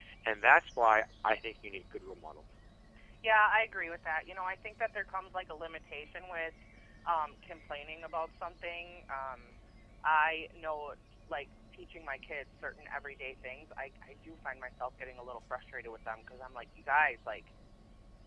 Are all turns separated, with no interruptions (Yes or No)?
Yes